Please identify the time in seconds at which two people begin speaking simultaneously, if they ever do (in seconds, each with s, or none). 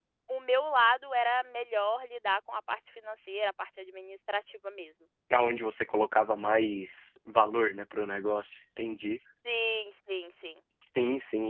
none